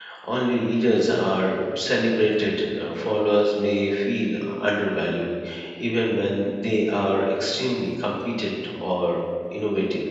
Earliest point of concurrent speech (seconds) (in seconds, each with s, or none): none